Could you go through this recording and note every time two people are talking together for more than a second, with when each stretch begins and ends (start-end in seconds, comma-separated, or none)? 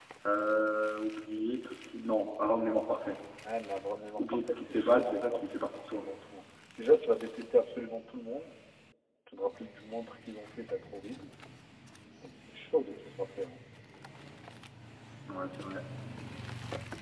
4.2-6.0